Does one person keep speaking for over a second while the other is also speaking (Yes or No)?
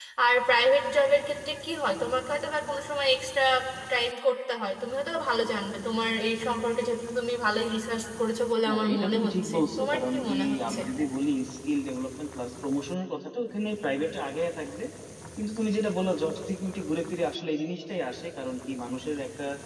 Yes